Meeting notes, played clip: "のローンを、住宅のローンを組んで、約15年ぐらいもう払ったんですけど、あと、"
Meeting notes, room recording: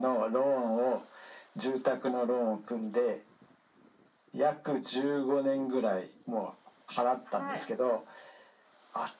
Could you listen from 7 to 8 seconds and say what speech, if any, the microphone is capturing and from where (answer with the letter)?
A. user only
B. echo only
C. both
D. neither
C